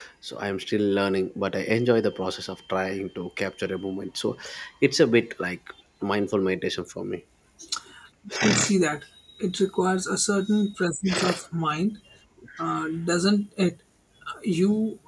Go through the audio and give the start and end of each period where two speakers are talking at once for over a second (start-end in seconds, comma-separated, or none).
none